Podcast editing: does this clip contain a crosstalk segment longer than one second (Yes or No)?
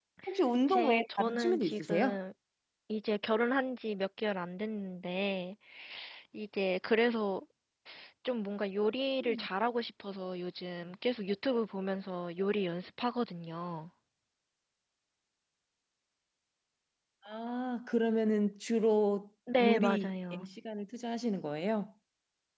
Yes